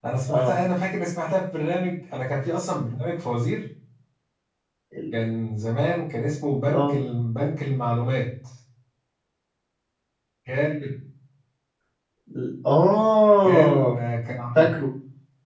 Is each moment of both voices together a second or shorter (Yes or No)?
Yes